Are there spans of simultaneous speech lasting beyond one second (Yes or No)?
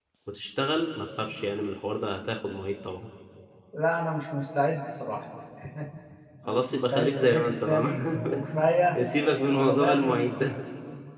Yes